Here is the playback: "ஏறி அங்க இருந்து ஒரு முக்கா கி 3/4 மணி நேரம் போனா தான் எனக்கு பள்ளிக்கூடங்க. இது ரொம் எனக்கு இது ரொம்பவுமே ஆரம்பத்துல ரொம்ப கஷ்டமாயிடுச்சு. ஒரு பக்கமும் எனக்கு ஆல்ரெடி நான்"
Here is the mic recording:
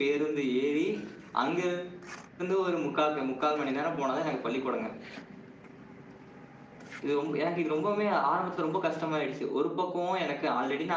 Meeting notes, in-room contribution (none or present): none